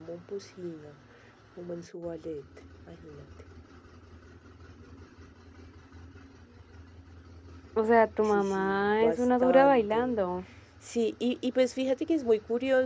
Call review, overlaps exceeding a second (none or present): present